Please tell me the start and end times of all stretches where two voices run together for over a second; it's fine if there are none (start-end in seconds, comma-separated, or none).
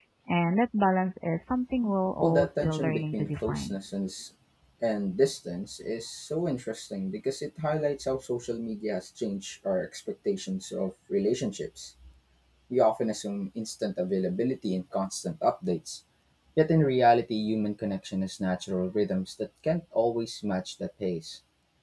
2.2-3.8